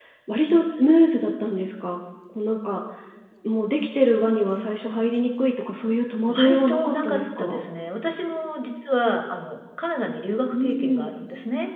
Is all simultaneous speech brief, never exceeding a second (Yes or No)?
No